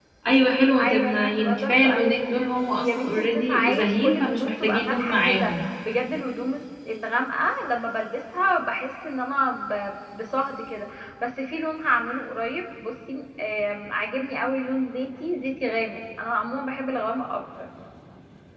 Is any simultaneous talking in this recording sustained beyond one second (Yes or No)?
Yes